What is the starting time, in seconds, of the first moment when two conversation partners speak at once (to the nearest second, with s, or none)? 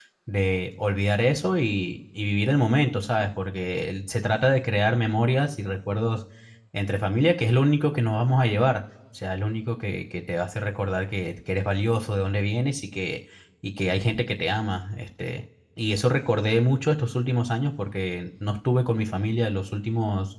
none